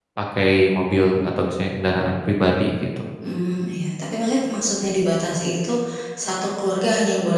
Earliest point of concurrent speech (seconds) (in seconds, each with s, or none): none